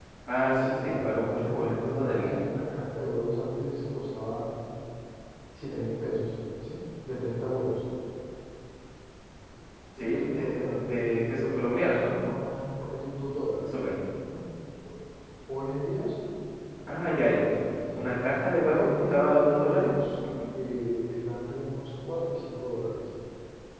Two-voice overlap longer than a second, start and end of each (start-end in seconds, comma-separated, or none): 0.5-2.4, 10.0-12.1, 18.7-20.2